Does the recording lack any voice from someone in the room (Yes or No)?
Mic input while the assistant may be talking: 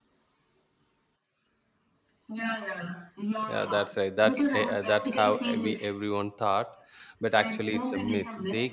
No